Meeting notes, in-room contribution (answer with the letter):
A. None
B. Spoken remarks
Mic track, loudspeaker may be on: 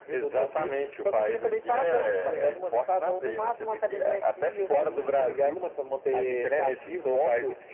A